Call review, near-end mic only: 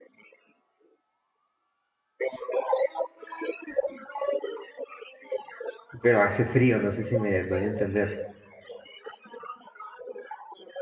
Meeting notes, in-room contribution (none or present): present